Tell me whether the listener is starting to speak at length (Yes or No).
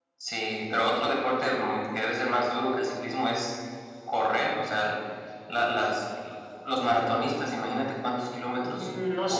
Yes